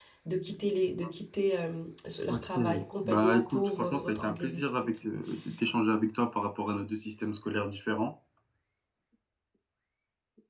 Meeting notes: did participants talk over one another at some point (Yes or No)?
Yes